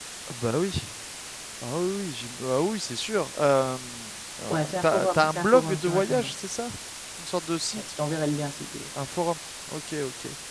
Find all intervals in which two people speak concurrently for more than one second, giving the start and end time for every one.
4.5-6.3

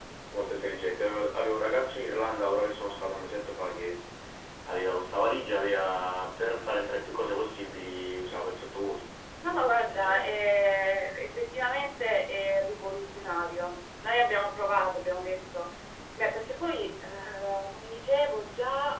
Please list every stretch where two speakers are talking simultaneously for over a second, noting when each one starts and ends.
none

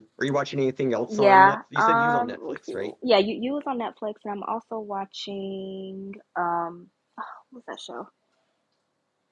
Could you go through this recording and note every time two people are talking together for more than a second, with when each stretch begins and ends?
1.1-2.9

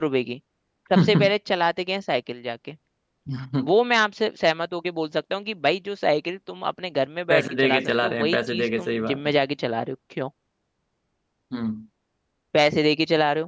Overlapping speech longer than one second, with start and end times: 7.3-9.2

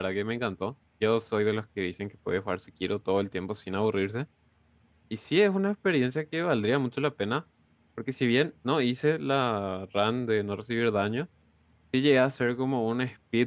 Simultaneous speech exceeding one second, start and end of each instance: none

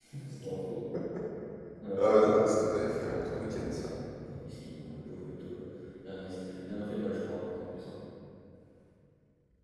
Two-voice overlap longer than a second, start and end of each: 2.7-3.9

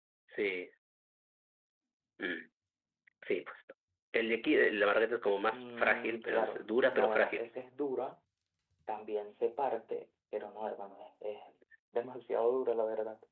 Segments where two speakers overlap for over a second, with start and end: 5.5-7.4

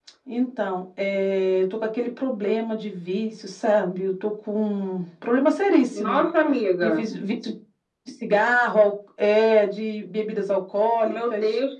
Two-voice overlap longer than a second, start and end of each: none

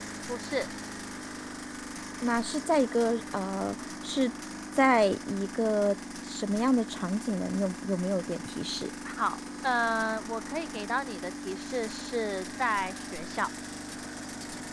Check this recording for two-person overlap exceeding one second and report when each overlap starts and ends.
none

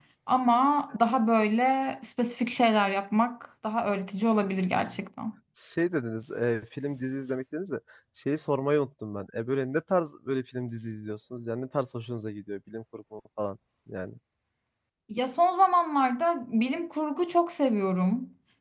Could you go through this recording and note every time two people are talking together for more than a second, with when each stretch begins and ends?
none

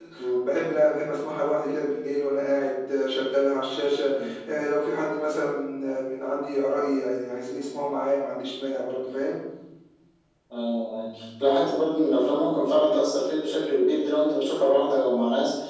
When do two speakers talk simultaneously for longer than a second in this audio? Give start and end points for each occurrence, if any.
none

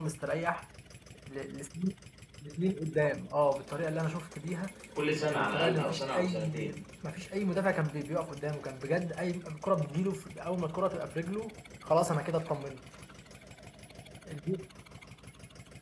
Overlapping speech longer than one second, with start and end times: 5.1-6.8

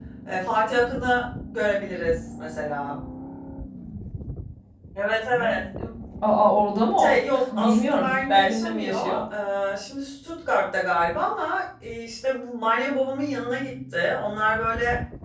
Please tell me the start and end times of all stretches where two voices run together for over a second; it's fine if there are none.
7.0-9.0

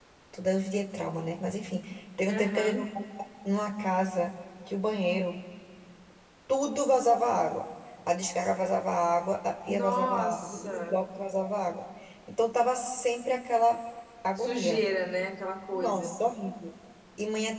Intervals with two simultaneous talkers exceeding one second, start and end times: 9.7-10.9

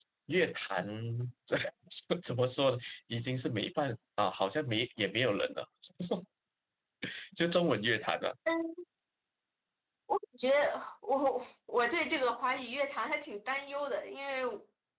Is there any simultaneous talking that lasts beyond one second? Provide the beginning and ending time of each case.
none

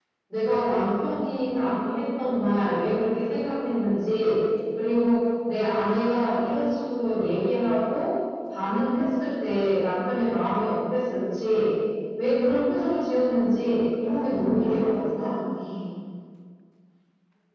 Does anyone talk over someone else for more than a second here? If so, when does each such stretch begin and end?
14.0-15.3

